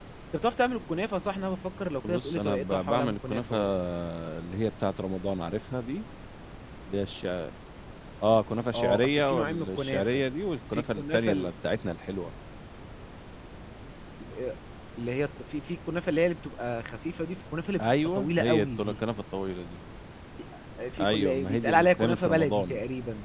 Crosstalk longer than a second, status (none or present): present